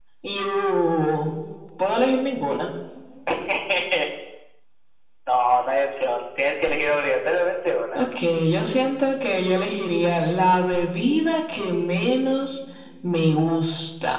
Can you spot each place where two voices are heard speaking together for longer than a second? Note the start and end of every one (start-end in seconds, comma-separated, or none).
none